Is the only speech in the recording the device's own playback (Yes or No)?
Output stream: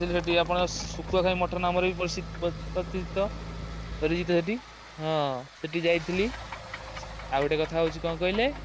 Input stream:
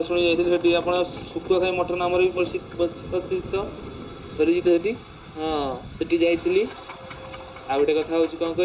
Yes